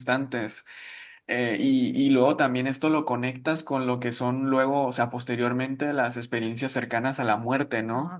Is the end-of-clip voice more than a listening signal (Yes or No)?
No